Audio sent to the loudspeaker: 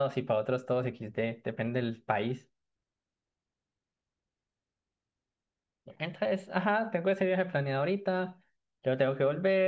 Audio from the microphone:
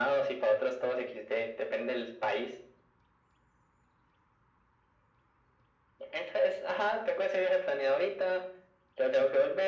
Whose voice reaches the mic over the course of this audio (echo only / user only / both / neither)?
echo only